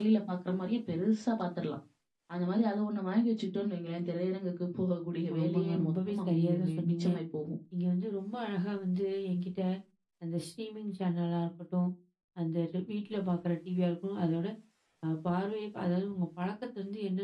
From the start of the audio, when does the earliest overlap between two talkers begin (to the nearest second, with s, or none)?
5 s